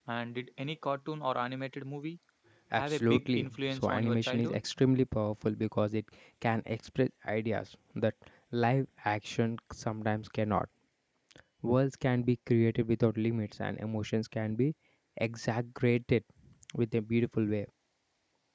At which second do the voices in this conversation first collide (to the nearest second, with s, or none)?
3 s